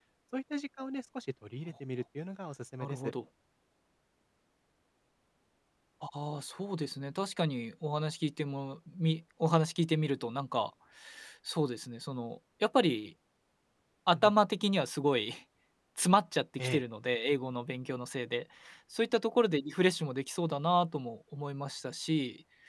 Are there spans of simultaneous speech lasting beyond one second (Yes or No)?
No